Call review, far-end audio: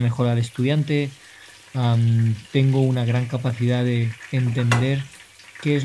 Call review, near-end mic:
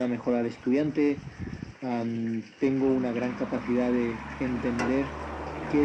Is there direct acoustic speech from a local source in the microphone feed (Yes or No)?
No